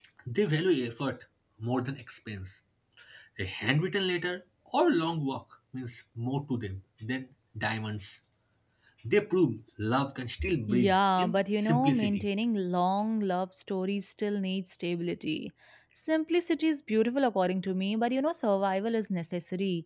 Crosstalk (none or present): present